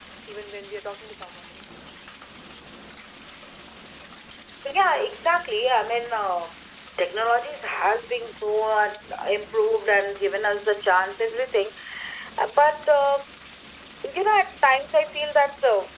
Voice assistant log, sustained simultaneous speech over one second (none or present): none